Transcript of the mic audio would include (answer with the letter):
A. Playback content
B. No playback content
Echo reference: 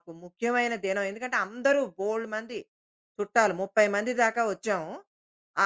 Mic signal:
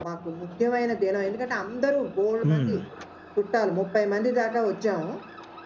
A